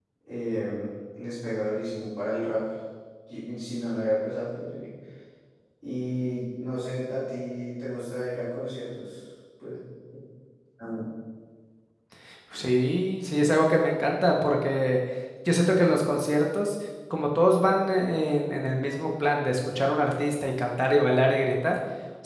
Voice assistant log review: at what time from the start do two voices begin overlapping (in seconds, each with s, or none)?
none